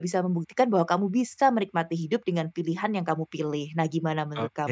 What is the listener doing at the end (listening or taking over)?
taking over